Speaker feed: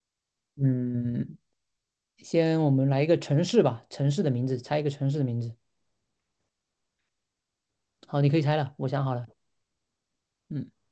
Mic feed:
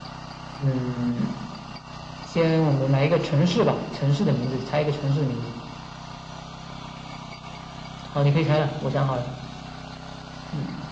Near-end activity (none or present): none